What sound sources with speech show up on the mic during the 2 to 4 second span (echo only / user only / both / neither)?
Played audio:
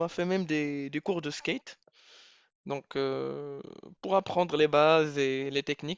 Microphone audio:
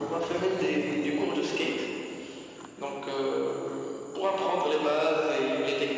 echo only